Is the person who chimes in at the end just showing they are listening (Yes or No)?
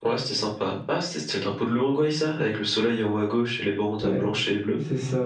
No